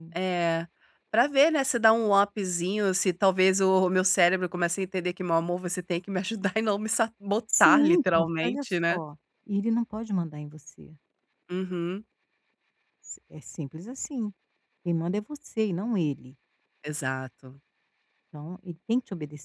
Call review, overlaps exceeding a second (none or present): present